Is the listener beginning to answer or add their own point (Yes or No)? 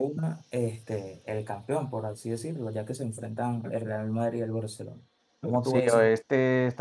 Yes